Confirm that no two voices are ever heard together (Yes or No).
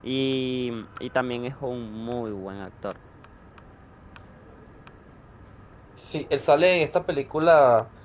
Yes